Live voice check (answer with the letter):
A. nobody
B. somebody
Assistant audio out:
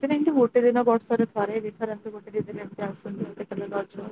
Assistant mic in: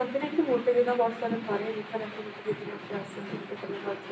A